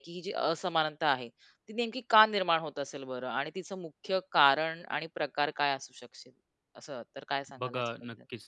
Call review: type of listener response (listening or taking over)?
taking over